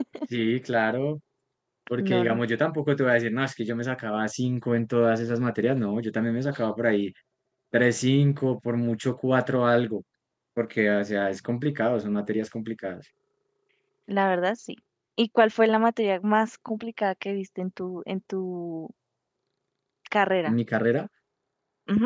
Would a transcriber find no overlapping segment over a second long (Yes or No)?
Yes